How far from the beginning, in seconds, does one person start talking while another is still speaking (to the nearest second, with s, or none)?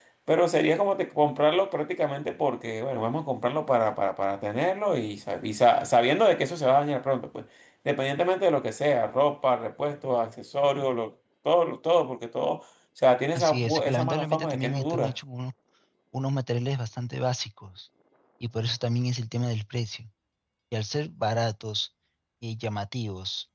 13 s